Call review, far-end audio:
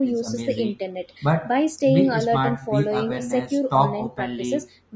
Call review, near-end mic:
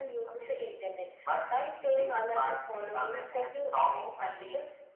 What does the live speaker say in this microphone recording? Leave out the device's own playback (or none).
none